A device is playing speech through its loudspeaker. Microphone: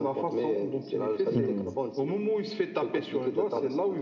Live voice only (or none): Mhm.